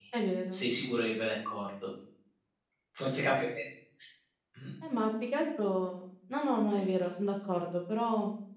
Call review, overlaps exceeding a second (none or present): none